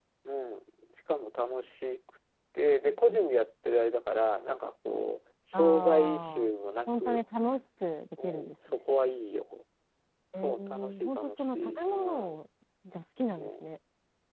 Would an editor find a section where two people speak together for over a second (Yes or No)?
Yes